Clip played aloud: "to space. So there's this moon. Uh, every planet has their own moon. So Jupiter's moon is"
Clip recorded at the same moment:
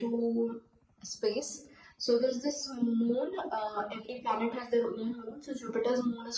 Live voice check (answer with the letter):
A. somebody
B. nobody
B